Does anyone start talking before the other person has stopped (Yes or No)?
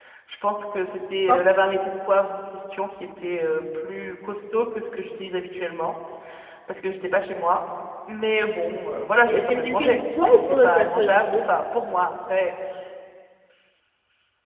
Yes